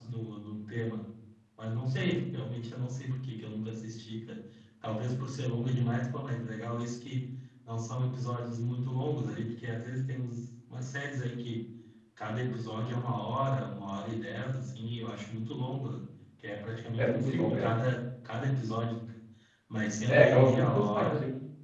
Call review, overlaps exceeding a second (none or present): present